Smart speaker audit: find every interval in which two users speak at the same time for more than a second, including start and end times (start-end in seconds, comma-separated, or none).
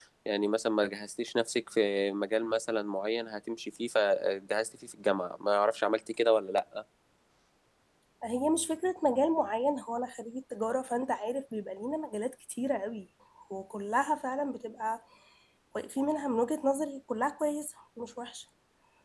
none